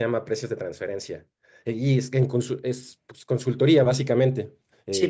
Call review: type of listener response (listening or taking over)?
taking over